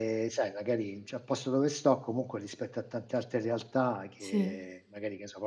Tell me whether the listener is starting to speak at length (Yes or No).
No